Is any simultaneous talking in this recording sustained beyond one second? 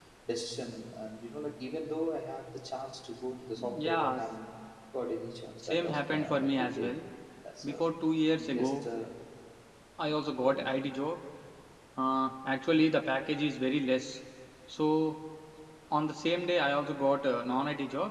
Yes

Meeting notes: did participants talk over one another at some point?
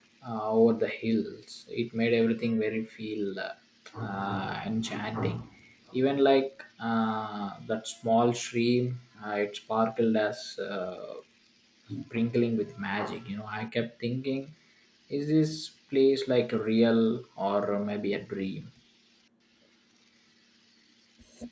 No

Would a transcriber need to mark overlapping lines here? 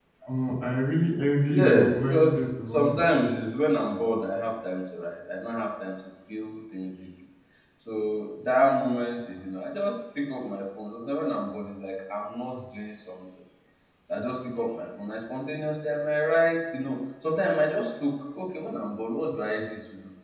Yes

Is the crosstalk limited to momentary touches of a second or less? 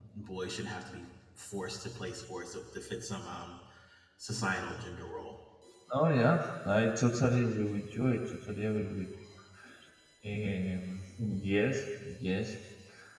Yes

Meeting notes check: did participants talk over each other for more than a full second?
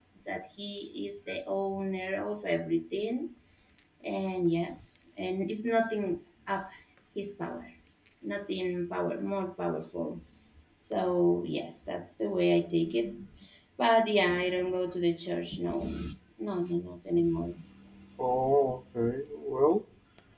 No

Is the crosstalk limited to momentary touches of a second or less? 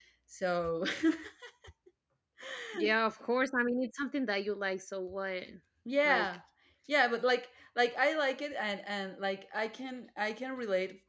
Yes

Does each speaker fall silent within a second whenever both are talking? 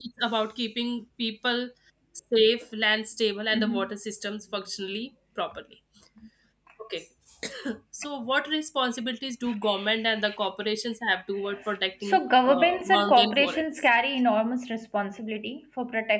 No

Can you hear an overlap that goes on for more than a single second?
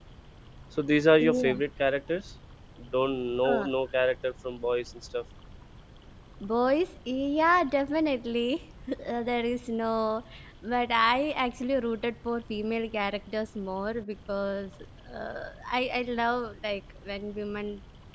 No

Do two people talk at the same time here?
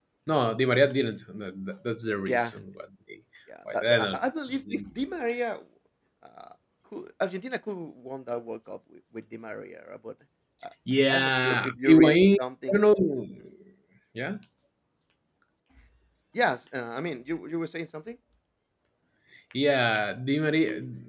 Yes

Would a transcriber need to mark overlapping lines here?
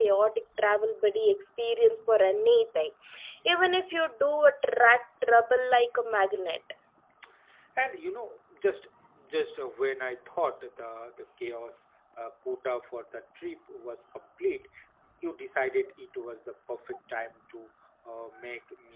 No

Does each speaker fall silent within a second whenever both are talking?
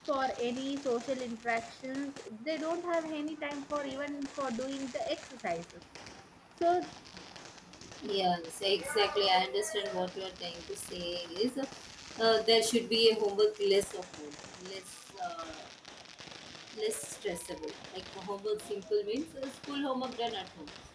Yes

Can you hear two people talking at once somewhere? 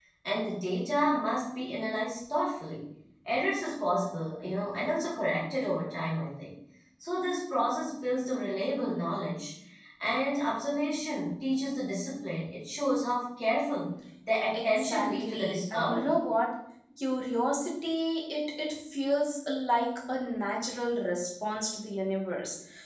Yes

